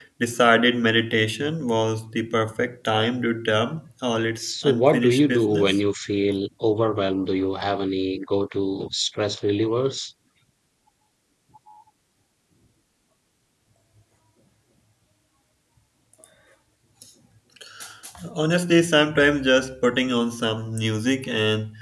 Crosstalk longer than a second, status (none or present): present